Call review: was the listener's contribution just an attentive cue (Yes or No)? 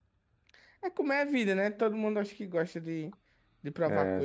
No